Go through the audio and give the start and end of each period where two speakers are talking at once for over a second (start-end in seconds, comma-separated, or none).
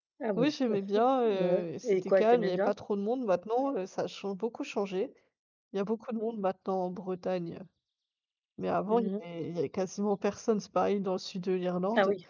1.2-2.7